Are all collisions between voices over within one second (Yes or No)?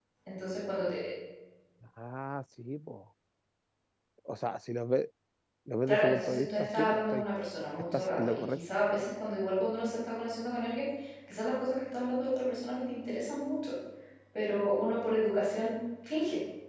No